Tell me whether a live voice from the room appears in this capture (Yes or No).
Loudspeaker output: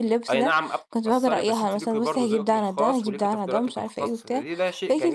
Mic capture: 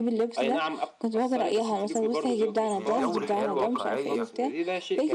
Yes